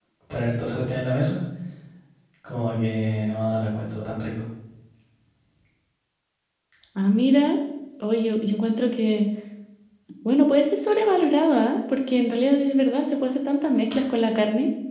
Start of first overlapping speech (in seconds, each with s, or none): none